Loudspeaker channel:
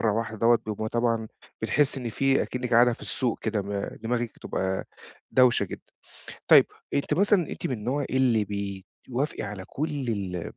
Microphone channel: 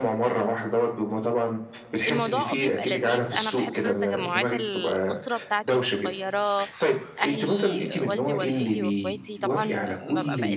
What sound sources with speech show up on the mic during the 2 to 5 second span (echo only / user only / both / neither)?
both